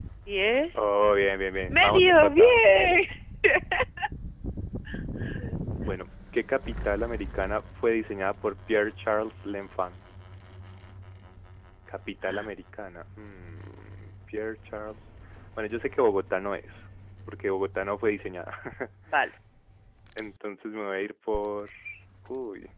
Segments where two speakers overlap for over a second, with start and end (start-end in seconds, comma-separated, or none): 1.7-3.0